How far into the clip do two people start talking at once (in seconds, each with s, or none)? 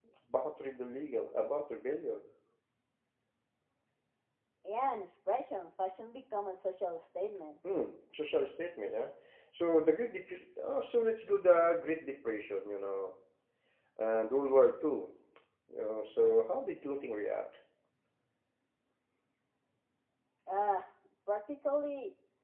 none